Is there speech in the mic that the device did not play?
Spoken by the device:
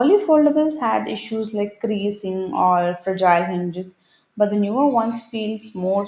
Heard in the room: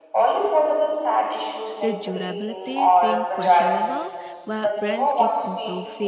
Yes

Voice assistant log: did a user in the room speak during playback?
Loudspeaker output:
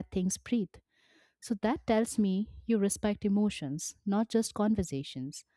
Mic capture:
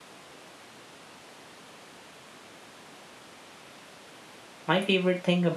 Yes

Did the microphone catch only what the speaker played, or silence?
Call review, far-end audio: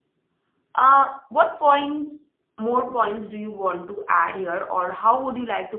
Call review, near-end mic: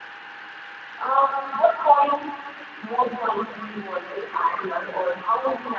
Yes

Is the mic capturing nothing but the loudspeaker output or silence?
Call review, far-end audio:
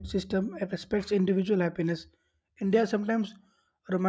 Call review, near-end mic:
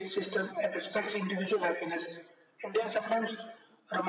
Yes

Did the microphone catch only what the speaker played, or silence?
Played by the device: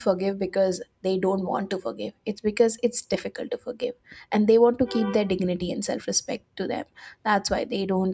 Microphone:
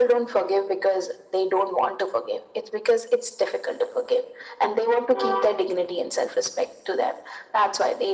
Yes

